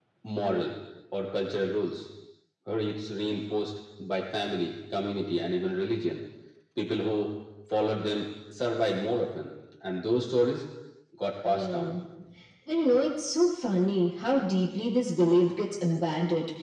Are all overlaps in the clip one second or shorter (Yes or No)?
Yes